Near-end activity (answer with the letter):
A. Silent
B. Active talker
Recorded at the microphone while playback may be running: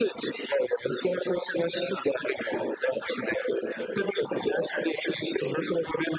A